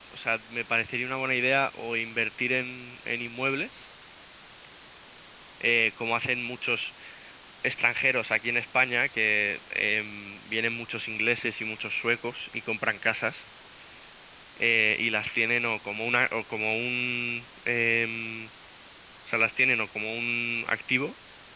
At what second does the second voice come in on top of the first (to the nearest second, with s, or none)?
none